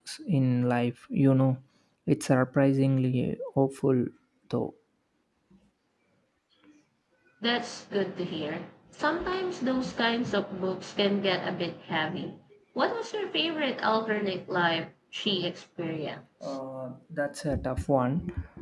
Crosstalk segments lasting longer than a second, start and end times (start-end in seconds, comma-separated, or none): none